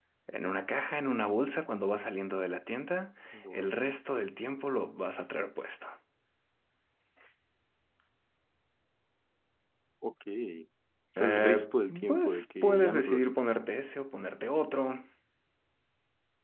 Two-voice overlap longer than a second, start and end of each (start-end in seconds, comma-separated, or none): 12.1-13.6